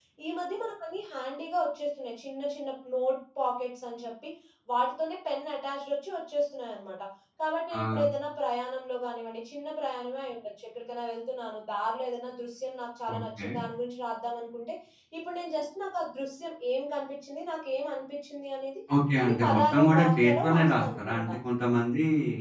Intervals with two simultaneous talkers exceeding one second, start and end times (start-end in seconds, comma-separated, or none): 19.2-21.3